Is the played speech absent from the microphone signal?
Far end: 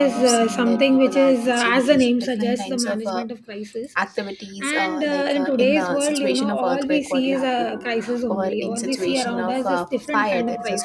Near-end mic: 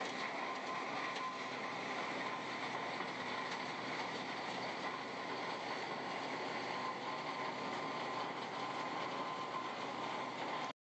Yes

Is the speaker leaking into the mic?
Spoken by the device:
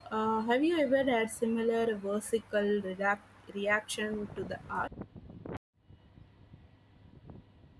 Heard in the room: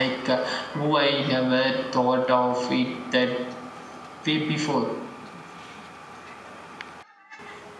No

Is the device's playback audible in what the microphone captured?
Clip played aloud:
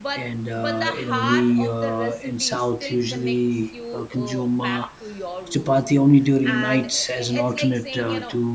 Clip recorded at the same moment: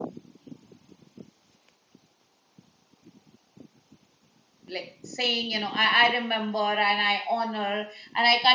No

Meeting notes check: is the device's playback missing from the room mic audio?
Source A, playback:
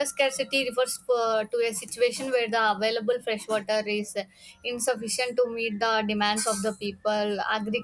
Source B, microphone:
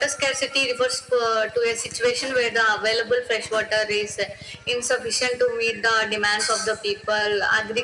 No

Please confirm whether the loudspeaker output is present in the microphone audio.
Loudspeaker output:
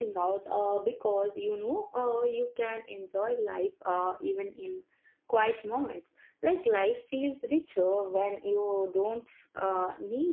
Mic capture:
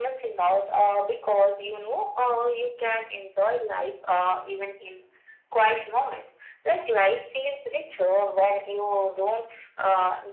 Yes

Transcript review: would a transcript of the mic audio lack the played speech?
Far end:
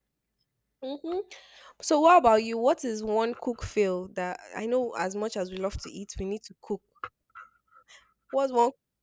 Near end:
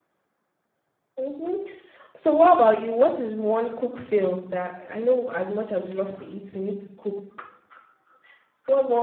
No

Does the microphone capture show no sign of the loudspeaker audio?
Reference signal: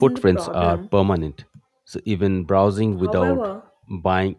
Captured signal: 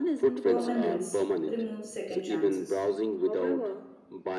No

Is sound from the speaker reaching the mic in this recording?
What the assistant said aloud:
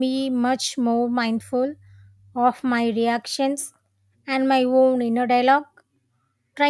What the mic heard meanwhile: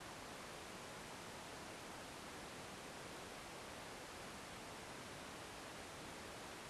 No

